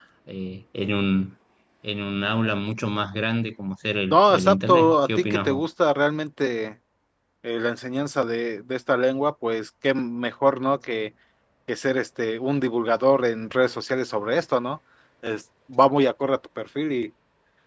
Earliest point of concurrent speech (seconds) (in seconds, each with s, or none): 4.1 s